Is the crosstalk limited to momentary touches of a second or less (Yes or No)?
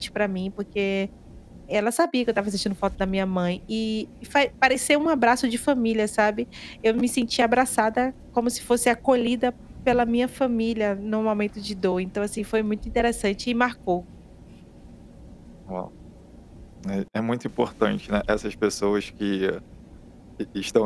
Yes